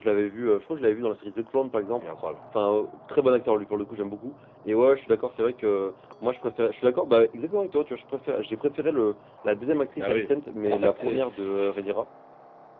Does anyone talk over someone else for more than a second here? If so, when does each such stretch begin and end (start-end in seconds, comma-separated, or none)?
10.6-11.9